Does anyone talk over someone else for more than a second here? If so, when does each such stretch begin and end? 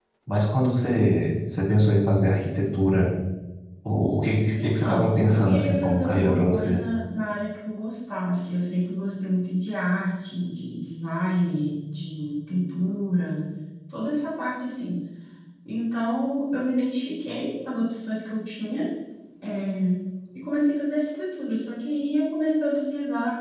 4.6-6.8

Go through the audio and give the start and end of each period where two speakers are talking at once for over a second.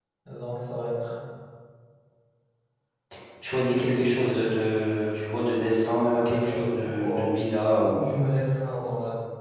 6.0-7.2

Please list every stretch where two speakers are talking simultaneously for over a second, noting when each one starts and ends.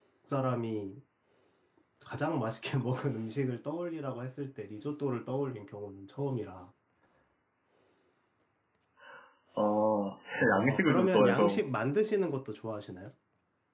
10.4-11.6

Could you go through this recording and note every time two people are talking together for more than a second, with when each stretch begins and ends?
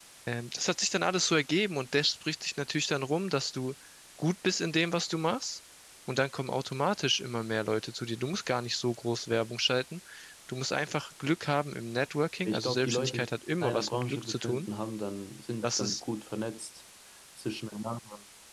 12.4-14.7

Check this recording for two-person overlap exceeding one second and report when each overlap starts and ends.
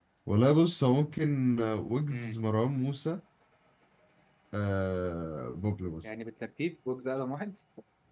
none

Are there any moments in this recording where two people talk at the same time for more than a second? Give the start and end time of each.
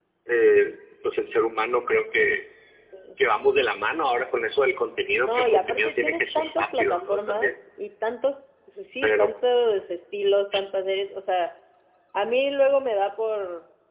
5.2-7.5

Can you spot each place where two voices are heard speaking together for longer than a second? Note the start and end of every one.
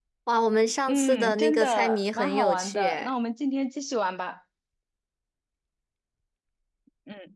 0.9-3.1

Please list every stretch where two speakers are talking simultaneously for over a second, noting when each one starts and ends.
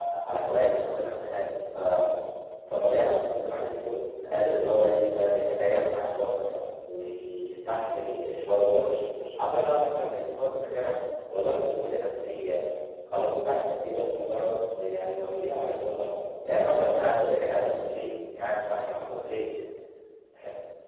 none

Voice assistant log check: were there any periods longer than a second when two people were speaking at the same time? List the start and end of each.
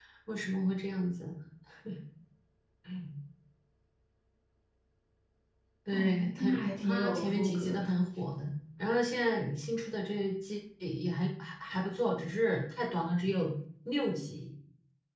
5.9-7.8

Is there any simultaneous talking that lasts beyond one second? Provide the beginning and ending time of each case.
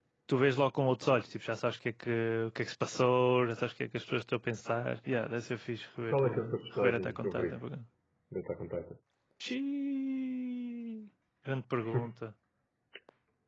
6.1-7.6

